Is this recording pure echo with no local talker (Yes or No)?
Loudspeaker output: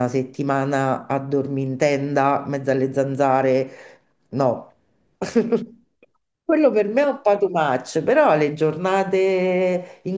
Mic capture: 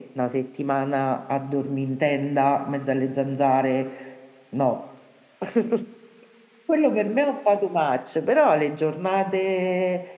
Yes